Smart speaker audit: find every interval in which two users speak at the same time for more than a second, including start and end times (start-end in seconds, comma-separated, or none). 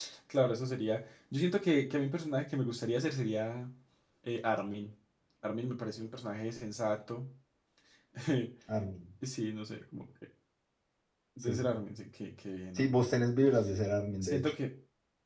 none